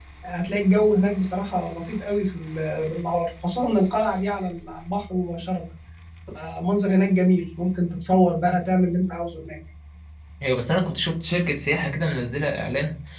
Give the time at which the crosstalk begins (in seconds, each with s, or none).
none